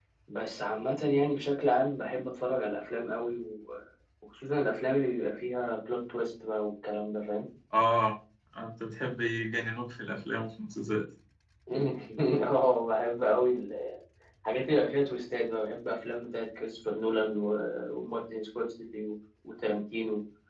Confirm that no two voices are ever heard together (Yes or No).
Yes